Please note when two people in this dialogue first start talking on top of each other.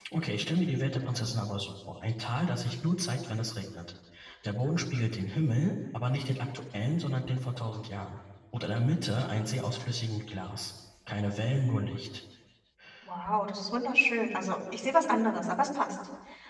none

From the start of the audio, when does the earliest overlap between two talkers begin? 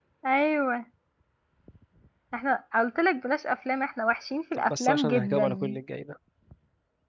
4.5 s

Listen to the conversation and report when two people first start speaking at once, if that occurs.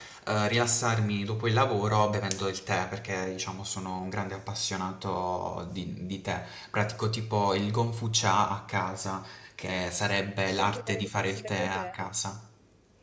10.3 s

